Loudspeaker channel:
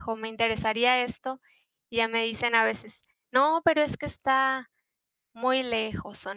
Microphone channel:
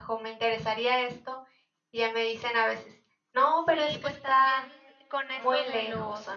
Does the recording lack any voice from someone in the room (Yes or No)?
No